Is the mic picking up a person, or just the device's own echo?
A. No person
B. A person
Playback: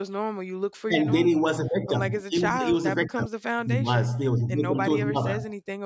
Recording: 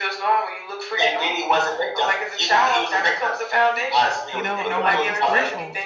B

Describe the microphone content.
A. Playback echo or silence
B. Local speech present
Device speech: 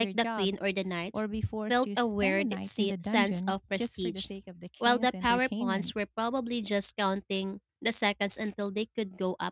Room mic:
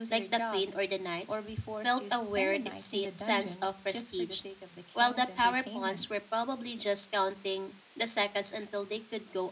A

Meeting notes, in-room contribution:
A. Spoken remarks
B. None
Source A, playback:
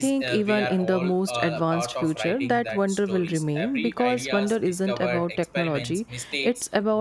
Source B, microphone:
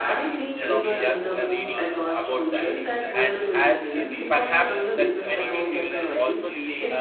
A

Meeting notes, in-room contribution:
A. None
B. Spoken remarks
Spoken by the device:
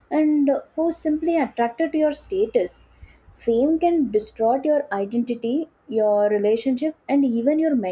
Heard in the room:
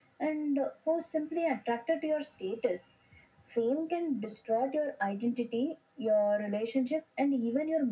A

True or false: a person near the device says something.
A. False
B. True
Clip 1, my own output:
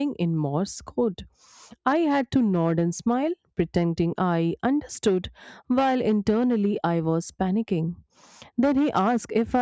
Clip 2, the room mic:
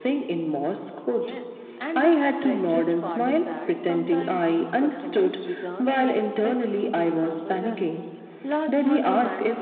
B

